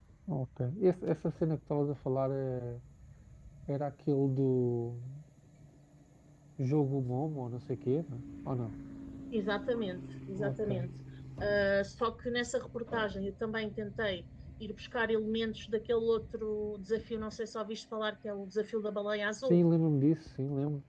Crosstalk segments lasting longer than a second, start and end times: none

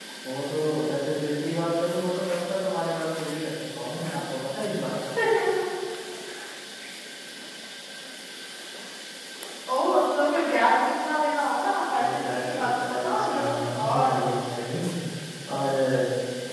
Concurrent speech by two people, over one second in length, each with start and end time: 11.9-14.1

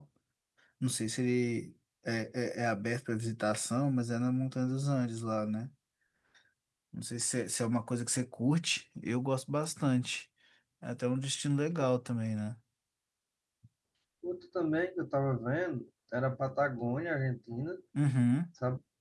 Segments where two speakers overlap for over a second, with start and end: none

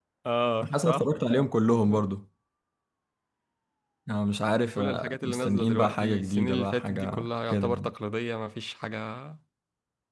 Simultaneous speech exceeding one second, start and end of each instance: 4.8-7.9

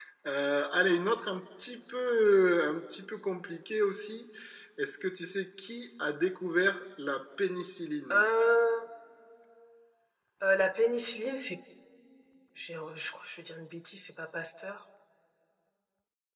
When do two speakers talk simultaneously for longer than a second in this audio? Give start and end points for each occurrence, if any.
none

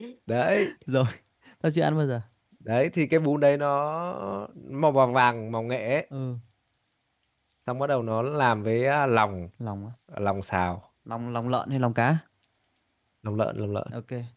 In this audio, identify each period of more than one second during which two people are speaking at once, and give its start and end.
none

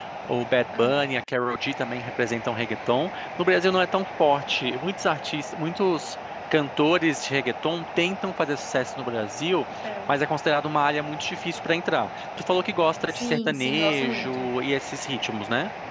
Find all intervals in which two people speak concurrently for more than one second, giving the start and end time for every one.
13.1-14.5

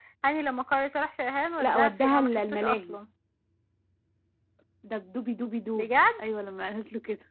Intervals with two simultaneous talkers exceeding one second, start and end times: 1.6-3.0

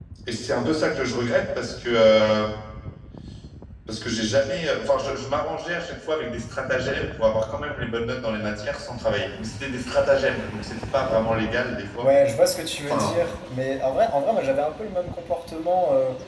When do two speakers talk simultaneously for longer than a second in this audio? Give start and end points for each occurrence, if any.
none

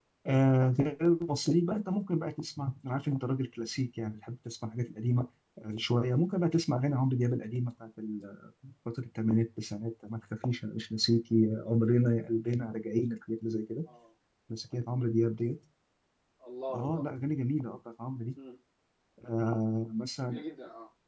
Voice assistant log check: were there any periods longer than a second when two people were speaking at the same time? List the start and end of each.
none

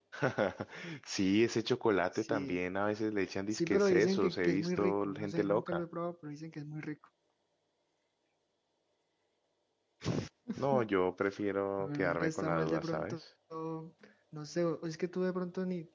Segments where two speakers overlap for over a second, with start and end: 3.5-5.8, 11.8-13.2

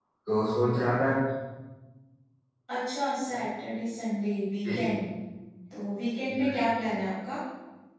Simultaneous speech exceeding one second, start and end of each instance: none

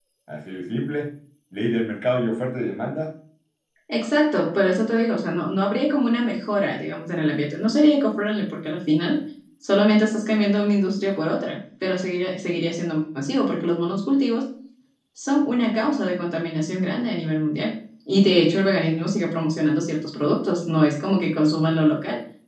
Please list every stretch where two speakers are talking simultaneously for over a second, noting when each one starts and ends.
none

